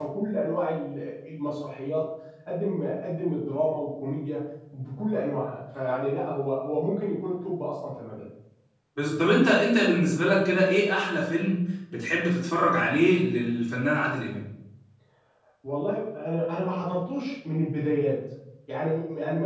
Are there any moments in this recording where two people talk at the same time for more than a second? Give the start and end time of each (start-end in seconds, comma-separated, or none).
none